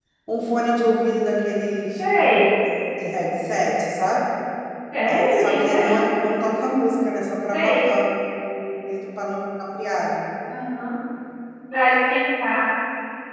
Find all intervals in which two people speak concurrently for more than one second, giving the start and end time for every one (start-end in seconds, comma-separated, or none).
5.1-6.5